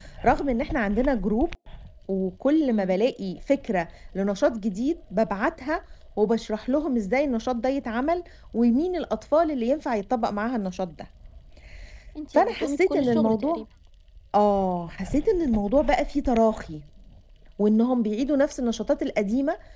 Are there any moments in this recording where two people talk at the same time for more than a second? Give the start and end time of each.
12.3-13.6

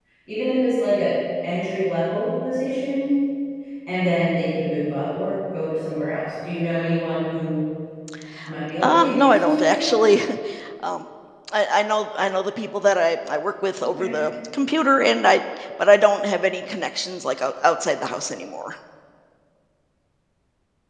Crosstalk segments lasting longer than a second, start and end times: 8.8-10.0

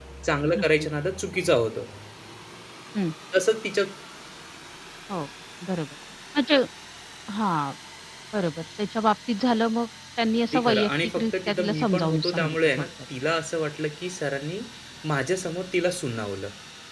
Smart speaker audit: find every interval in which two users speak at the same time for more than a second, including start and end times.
10.5-12.9

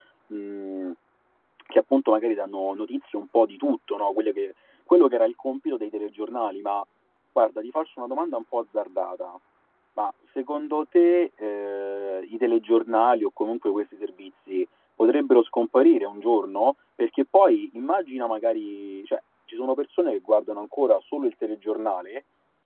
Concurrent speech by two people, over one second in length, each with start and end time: none

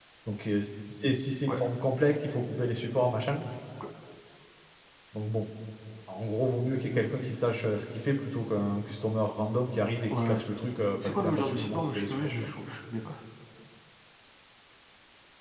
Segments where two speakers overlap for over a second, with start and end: 11.0-12.3

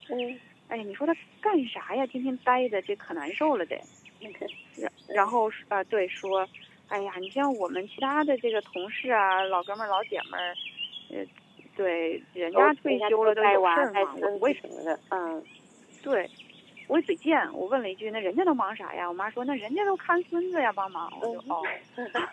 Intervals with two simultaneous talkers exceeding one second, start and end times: 12.5-14.6

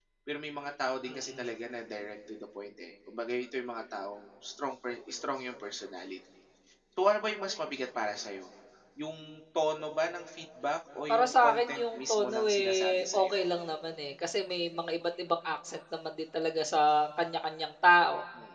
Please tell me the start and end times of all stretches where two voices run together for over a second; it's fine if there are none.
11.1-13.2

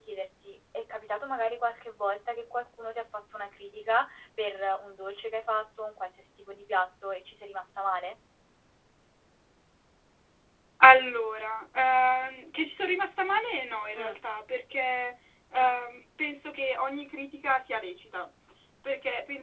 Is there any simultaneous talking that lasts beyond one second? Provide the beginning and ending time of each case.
none

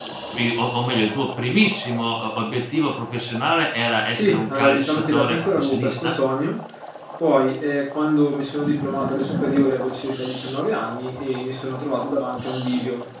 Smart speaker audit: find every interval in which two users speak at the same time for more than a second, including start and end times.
4.1-6.2

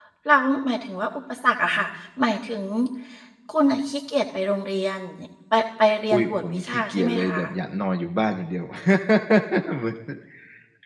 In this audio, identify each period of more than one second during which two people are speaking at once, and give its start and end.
6.1-7.4

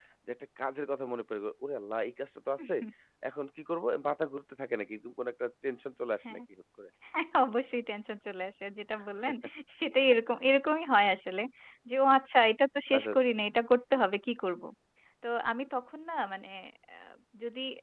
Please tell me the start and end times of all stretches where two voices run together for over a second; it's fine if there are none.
none

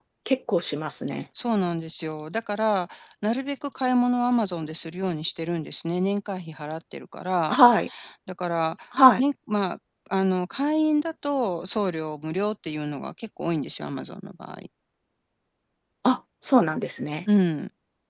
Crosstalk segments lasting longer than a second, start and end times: none

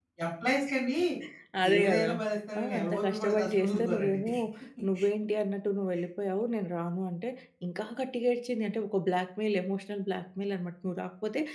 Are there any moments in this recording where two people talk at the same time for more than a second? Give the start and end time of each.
2.6-4.2

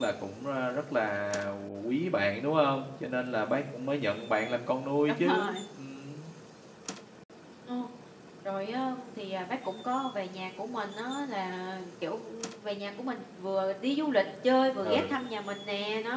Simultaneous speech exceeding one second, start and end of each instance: none

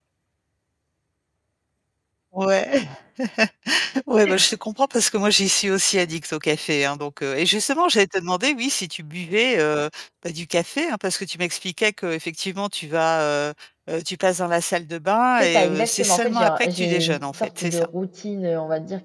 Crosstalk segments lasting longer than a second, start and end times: 15.4-17.9

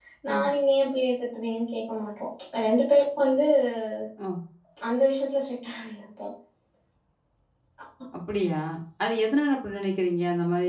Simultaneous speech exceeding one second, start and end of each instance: none

